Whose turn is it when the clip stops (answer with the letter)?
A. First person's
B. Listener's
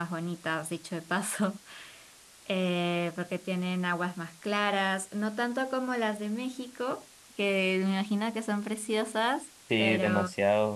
B